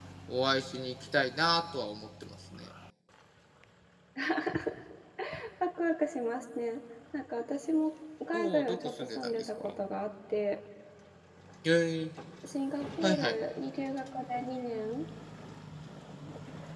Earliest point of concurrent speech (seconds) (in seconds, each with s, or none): 8.3 s